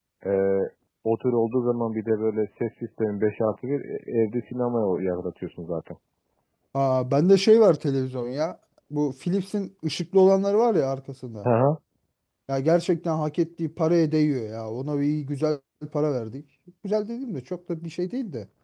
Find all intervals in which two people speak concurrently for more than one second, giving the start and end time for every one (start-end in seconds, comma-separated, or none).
none